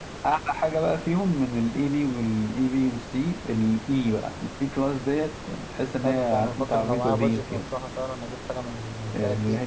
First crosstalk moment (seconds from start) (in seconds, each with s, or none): 6.0 s